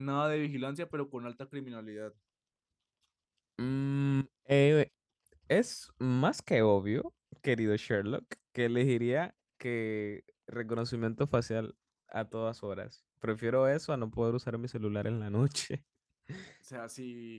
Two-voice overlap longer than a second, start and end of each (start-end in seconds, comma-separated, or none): none